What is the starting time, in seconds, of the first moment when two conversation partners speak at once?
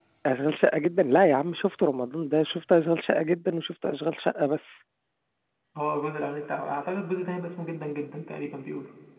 none

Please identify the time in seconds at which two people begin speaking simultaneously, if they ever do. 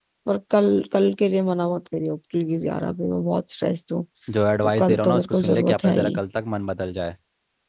4.6 s

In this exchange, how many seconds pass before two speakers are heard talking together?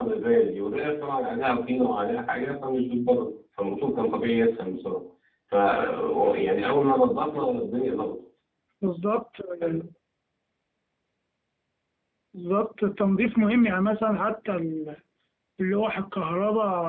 none

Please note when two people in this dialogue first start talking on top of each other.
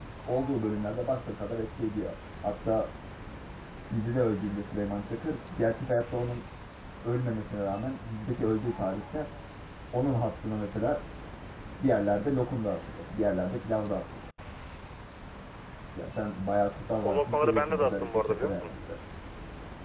17.0 s

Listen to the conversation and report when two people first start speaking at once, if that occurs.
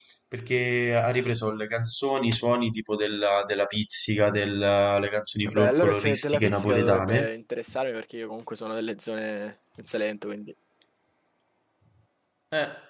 5.5 s

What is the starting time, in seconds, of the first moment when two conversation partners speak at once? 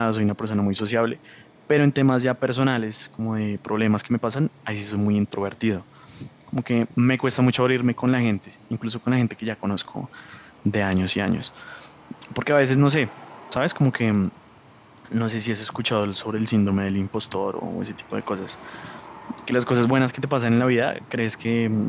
none

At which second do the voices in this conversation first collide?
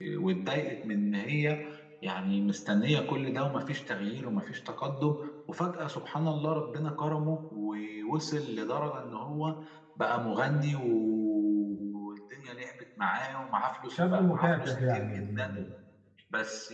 13.9 s

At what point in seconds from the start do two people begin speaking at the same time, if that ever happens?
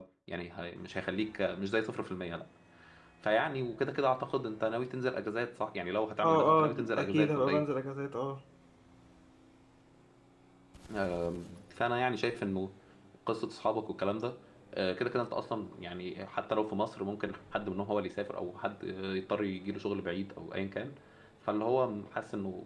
6.2 s

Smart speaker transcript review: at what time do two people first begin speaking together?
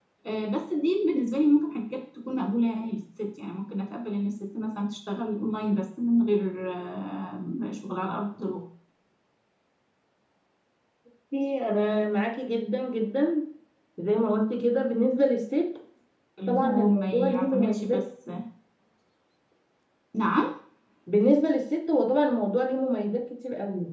16.5 s

